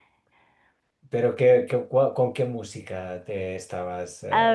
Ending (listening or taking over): taking over